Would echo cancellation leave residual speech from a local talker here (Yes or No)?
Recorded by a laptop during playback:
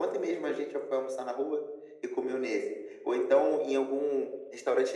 No